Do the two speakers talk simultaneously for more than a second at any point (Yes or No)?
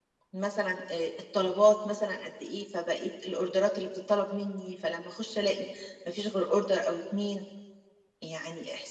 No